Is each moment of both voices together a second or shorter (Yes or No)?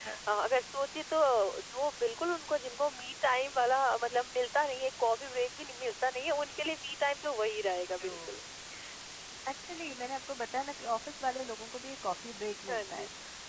Yes